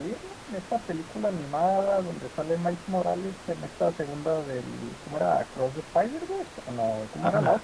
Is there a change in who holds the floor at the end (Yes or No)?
Yes